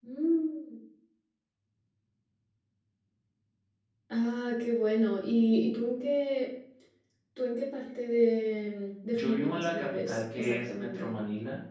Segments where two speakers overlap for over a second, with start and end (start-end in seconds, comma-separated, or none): 9.1-11.1